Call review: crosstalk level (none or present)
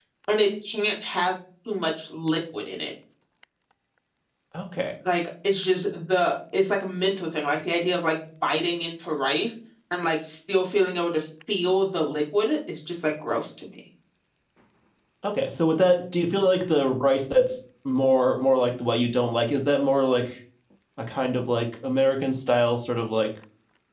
none